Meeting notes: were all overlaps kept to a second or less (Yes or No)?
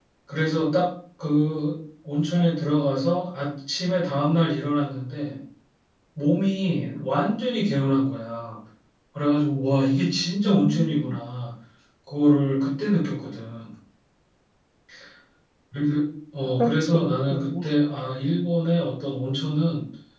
No